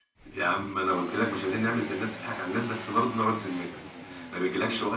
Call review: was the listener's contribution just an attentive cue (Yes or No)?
Yes